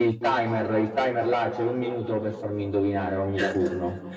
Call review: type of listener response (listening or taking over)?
taking over